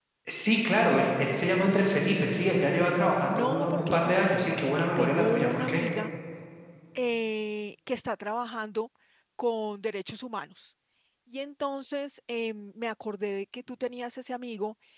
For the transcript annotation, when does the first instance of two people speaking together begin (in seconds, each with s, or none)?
3.3 s